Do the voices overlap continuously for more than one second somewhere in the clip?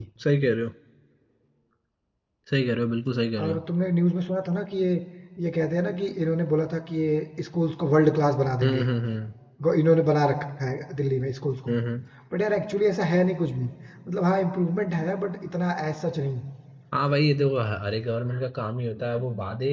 No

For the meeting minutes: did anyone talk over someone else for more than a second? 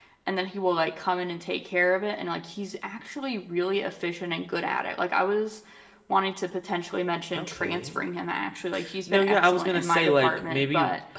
Yes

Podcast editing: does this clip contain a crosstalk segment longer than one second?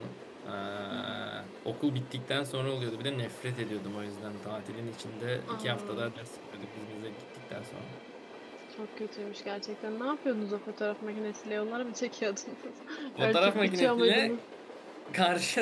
Yes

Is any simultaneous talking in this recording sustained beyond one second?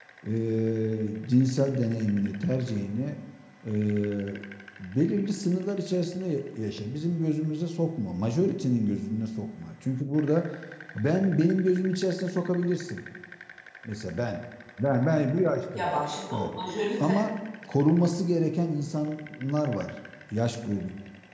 No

